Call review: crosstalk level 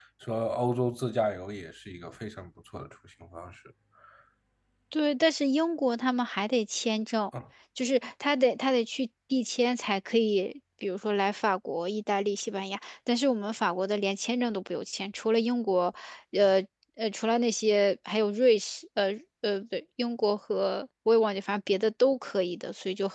none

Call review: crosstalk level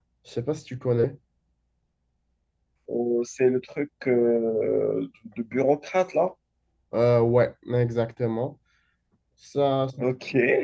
none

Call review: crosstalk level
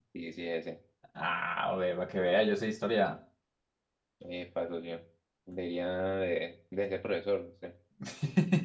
none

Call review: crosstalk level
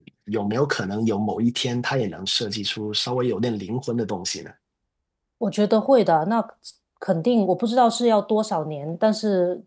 none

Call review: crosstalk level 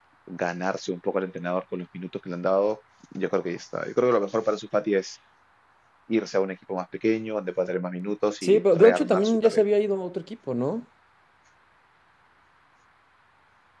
present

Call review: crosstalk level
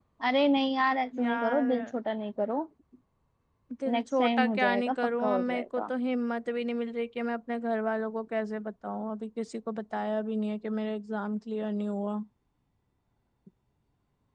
present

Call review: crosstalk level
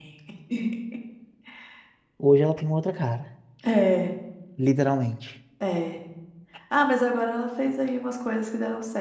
none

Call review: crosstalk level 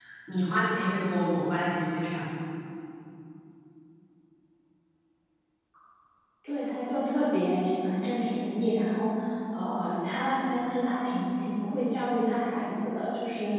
none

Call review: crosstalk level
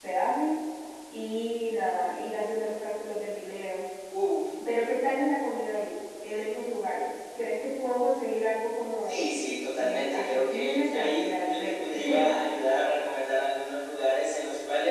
present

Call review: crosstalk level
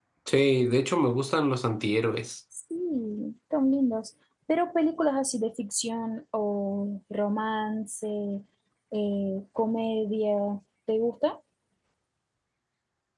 none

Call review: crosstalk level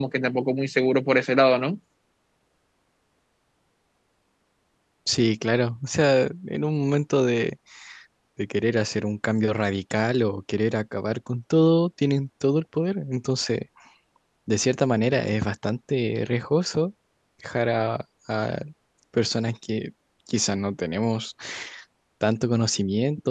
none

